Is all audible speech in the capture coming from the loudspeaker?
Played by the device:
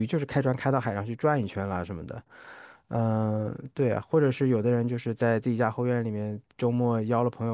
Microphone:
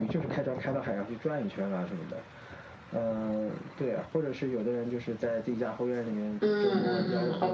No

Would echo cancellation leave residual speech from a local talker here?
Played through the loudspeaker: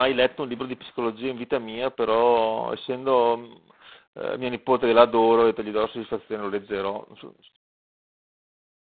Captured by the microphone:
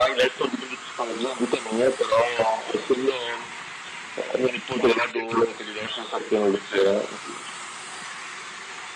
No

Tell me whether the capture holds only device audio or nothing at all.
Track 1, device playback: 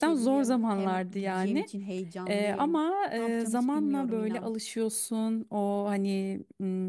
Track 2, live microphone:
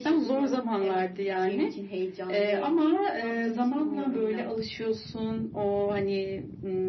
Yes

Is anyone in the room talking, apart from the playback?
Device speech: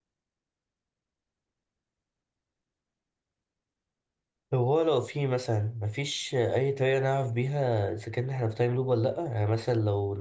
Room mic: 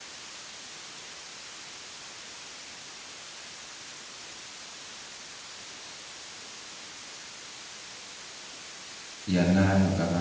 Yes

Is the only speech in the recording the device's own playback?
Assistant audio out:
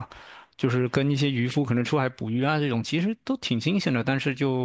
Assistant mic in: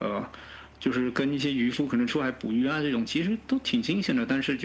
Yes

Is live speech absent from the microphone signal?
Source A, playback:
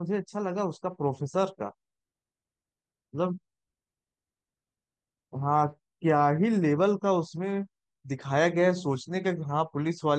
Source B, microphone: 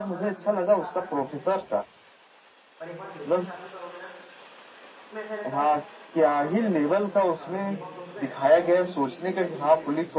No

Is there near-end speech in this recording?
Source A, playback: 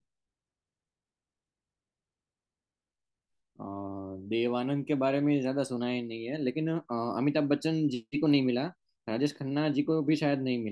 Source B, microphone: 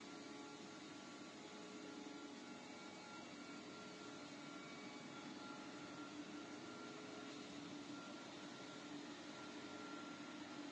No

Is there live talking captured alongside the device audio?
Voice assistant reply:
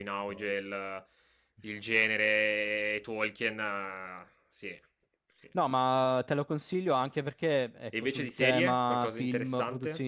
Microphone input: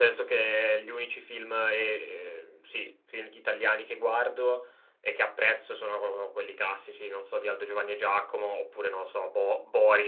Yes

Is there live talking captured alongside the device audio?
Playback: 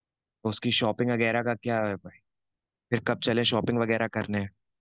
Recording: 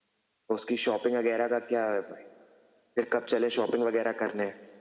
No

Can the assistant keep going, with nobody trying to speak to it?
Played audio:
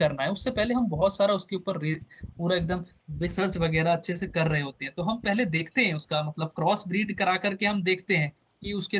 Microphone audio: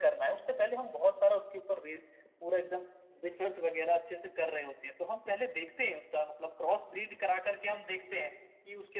Yes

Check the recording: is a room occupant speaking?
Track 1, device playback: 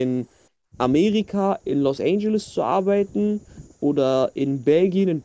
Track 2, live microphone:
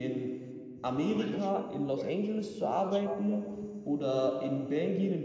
Yes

